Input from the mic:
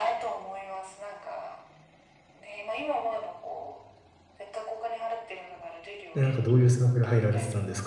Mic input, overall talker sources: both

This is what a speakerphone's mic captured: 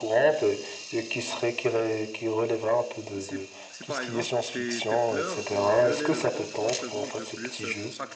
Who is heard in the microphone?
both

